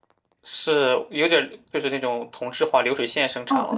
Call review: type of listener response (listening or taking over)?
taking over